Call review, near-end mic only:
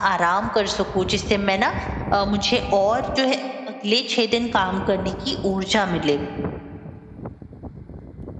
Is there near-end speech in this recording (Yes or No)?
Yes